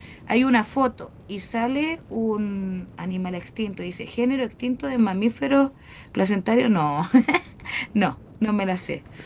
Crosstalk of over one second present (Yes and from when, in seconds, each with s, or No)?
No